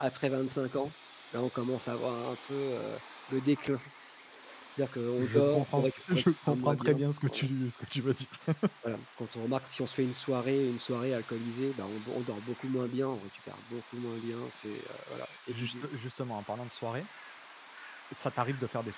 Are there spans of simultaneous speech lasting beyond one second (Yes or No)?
Yes